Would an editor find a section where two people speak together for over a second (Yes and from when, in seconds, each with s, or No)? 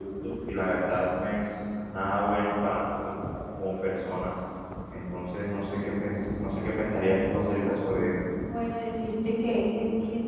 No